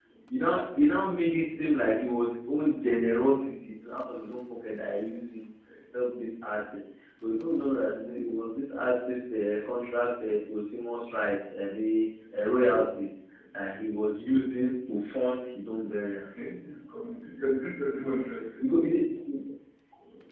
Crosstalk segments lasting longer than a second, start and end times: none

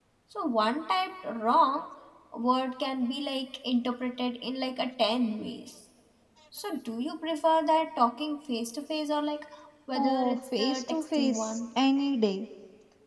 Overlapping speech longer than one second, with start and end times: 9.9-11.6

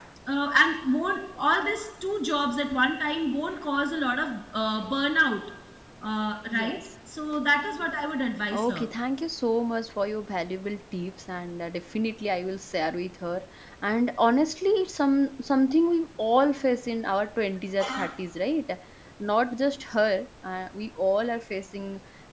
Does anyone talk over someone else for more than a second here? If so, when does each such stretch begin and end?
none

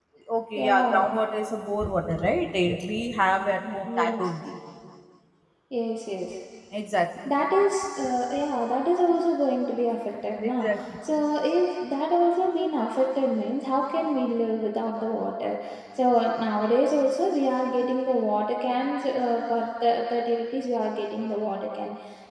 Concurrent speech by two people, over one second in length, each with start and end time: none

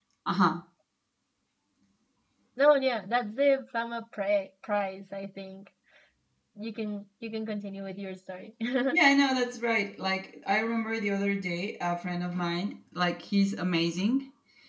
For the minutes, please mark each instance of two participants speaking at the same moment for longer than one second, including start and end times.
none

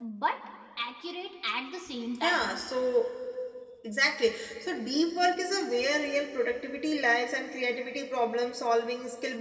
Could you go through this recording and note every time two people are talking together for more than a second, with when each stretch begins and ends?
none

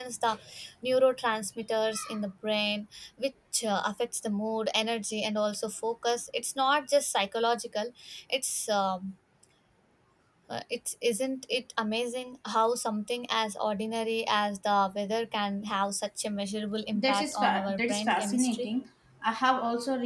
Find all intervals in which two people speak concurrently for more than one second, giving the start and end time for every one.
16.9-18.7

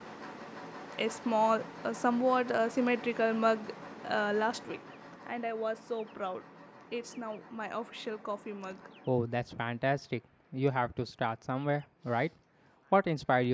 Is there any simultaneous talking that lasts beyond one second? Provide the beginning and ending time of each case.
none

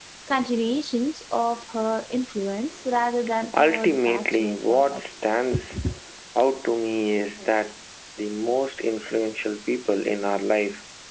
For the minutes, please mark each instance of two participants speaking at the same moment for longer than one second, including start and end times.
3.6-5.0

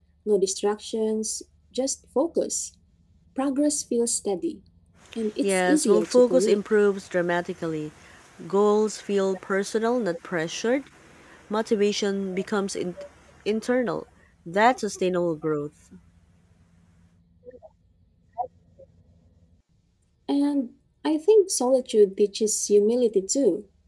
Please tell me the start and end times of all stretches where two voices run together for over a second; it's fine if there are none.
5.4-6.6

